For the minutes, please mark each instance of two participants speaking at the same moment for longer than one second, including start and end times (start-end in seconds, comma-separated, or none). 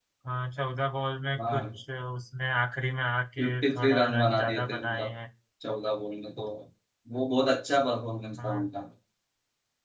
3.4-5.1